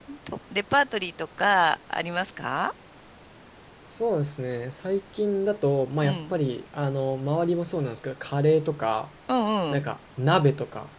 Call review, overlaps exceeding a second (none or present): none